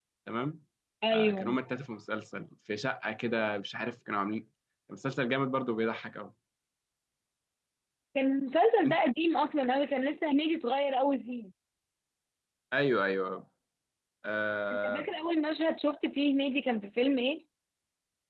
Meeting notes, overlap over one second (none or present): none